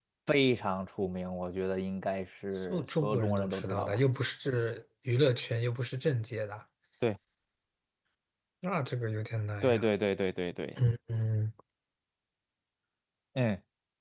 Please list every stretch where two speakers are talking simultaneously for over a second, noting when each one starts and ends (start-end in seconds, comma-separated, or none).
2.7-4.0